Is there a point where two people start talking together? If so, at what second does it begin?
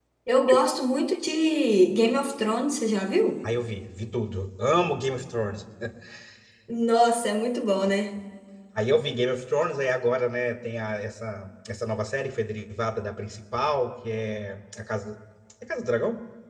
none

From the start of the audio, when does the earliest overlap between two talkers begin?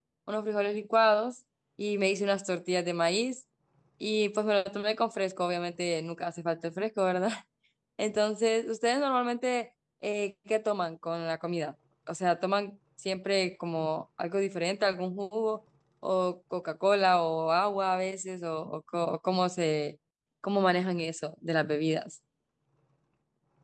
none

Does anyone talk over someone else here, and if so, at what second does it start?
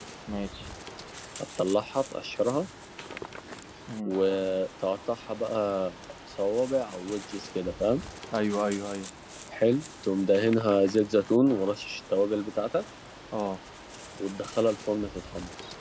none

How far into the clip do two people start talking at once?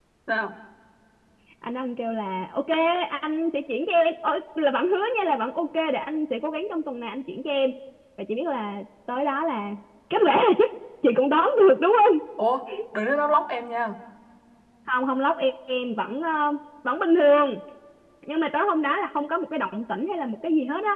none

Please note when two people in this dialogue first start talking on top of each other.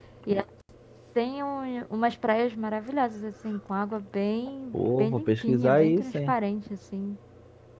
5 s

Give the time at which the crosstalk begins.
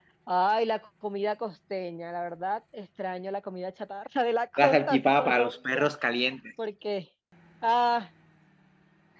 5 s

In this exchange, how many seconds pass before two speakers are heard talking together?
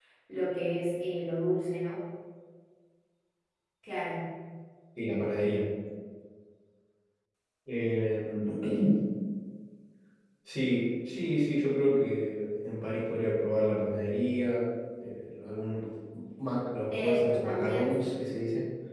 17 s

